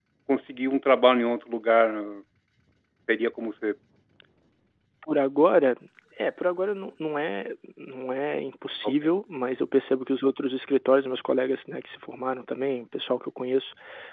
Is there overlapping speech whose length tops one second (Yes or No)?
No